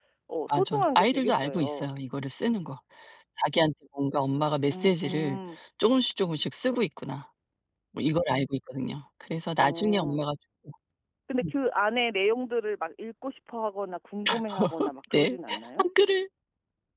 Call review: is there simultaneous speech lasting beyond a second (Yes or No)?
Yes